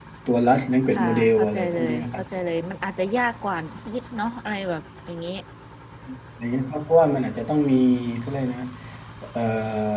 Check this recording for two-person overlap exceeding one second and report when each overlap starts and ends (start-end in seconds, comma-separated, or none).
0.9-2.2